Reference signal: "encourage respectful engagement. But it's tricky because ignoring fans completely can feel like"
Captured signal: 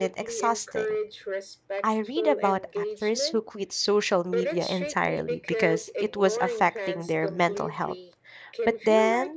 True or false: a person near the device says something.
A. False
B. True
B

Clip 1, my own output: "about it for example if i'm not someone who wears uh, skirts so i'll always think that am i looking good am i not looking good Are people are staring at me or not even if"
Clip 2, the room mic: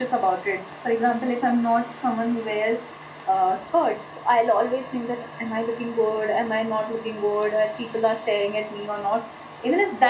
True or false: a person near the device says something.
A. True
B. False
B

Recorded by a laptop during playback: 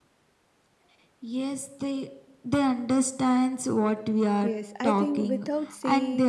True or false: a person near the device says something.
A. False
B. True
B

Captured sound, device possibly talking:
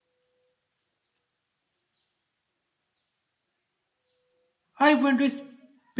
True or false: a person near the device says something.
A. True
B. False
A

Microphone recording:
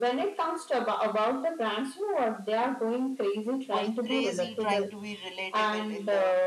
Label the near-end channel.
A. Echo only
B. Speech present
B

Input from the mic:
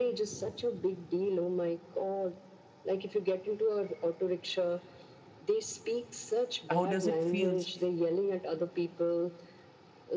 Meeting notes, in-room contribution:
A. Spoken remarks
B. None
A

